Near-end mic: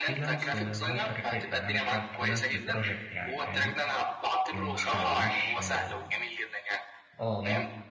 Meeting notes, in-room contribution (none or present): present